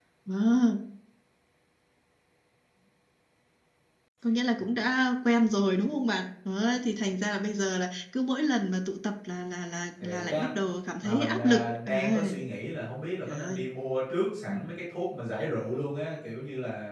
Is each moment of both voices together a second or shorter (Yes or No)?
No